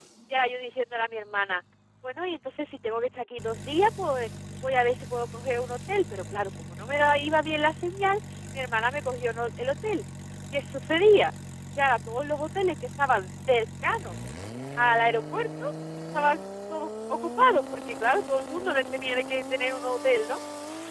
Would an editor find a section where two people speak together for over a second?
No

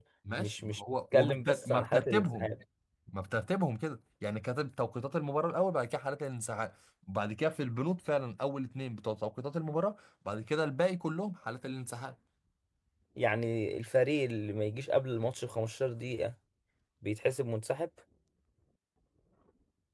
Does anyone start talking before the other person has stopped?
Yes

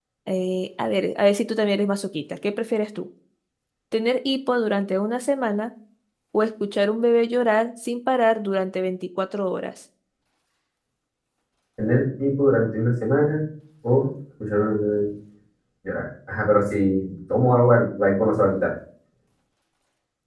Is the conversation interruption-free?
Yes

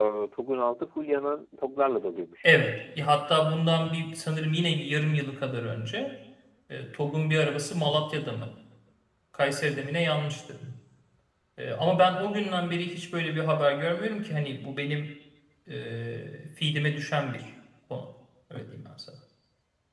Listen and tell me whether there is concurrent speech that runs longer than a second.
No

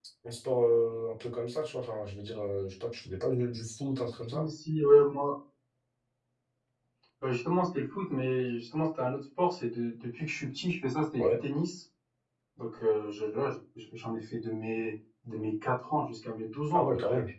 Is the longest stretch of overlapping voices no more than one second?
Yes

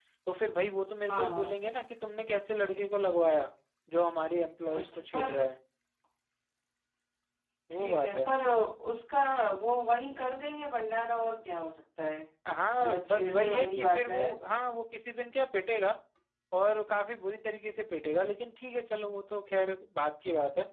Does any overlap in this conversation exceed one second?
Yes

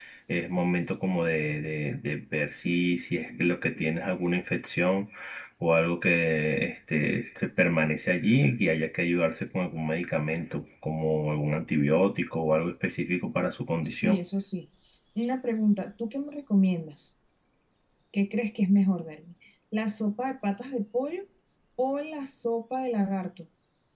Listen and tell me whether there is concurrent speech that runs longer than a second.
No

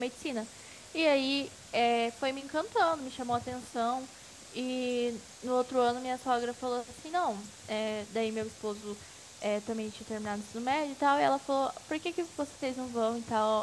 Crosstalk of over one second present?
No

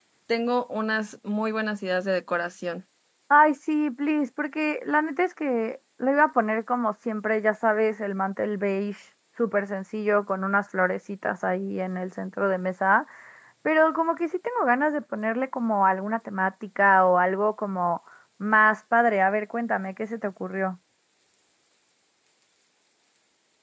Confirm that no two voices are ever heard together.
Yes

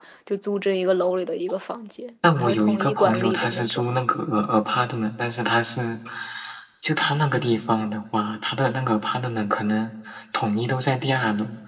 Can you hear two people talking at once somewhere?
Yes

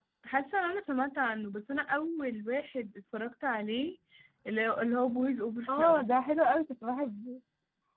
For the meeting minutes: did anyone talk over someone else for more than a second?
No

